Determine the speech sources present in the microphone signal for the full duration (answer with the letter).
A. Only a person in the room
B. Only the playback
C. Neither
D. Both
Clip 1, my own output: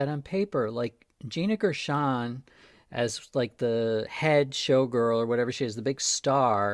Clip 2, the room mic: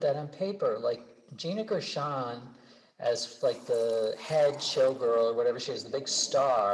B